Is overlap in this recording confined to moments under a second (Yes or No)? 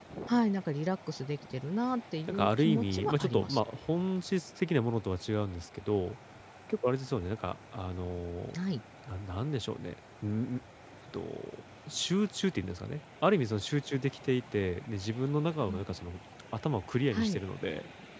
No